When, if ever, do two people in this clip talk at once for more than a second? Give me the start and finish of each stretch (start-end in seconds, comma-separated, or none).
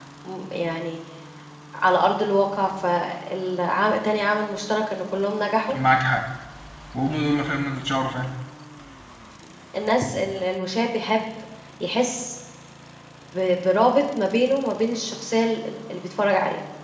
none